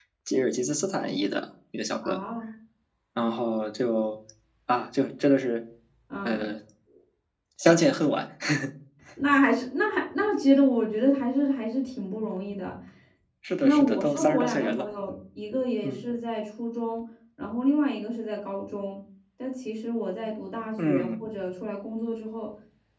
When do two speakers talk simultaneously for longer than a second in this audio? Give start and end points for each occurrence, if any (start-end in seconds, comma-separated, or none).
13.6-14.8